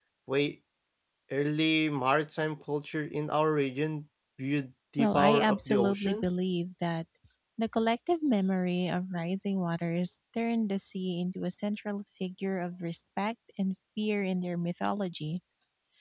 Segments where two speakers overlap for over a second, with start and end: 5.0-6.2

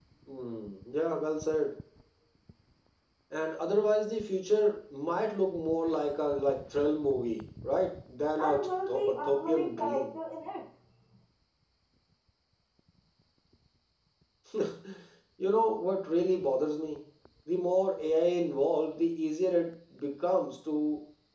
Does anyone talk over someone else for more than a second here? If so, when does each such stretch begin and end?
8.4-10.1

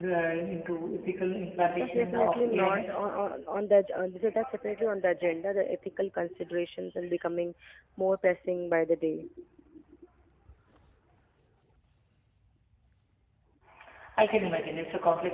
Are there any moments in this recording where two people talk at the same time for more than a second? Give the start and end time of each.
1.6-3.0

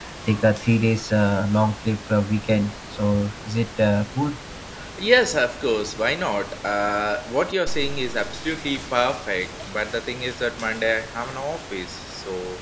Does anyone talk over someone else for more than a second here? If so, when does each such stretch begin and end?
none

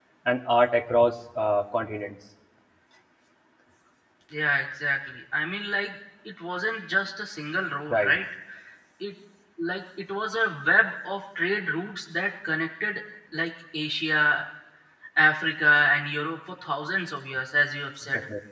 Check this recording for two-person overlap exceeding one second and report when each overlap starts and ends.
none

